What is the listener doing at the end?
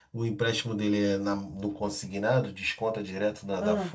listening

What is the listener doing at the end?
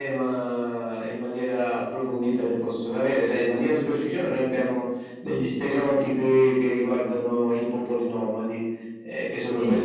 listening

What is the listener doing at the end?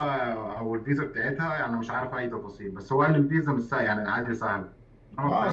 taking over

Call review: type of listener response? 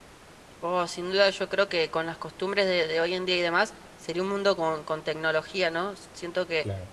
listening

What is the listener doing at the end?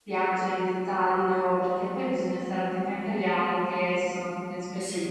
taking over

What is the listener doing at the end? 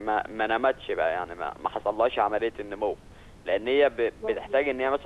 listening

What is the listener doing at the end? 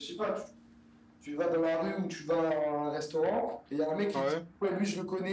listening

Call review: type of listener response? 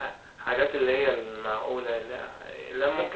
taking over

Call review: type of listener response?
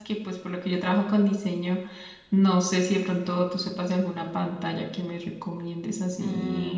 taking over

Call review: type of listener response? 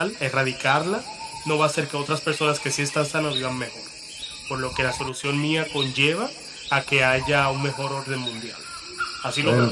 taking over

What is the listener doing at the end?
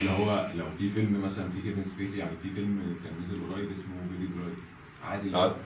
listening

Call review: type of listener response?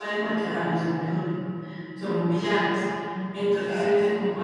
listening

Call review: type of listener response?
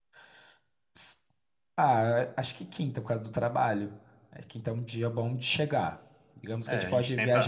taking over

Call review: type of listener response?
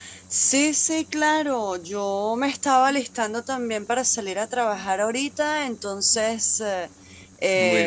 listening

